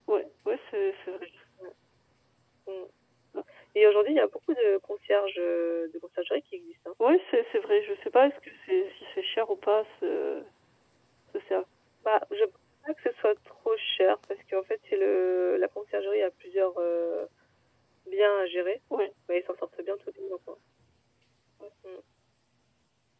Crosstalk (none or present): none